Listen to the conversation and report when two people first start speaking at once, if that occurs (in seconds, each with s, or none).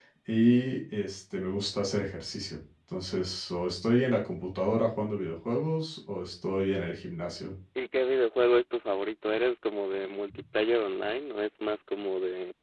none